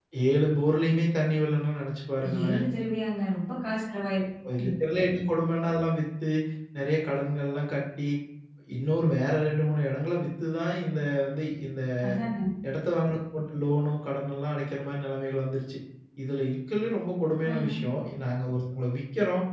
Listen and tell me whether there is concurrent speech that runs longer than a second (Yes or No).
No